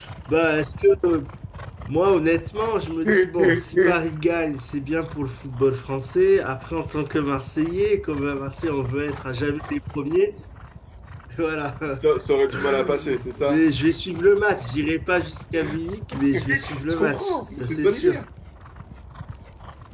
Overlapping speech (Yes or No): Yes